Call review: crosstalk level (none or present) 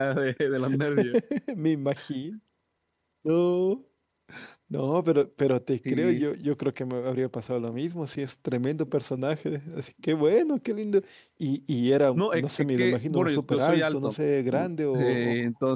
present